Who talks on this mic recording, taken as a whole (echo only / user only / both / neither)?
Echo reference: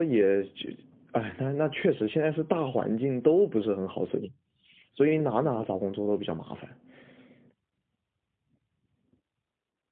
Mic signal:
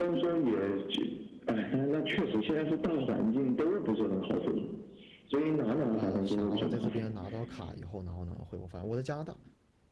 both